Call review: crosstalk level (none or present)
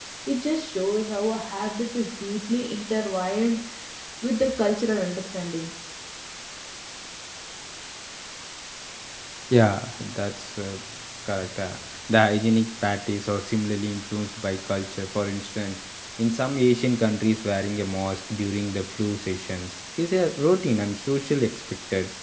none